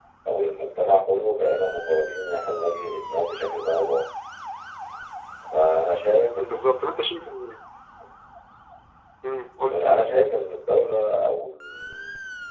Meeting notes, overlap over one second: none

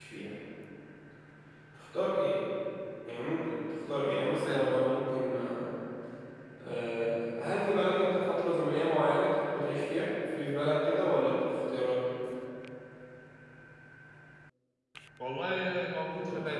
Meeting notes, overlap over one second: none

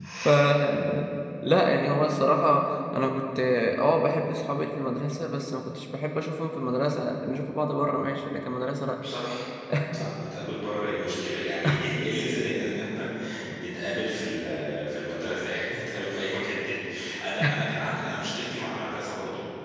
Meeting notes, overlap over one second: none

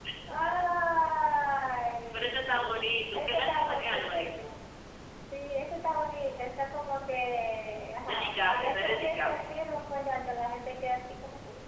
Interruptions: present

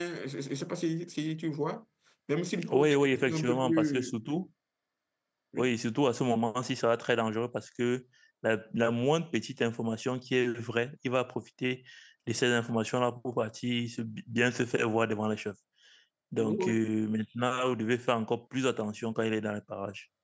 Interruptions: present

